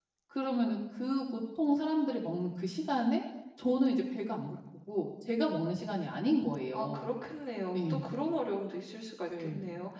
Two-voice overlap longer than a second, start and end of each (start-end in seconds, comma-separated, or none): none